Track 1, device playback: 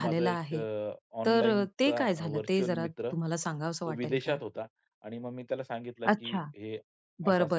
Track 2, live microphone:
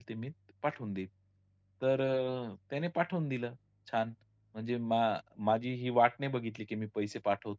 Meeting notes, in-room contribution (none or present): present